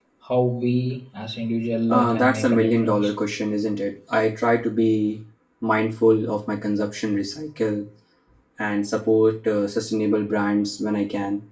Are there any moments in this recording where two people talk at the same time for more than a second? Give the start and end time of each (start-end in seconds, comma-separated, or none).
1.9-3.1